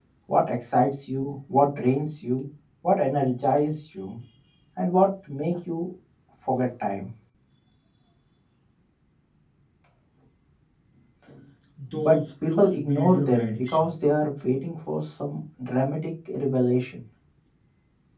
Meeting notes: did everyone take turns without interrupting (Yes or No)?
No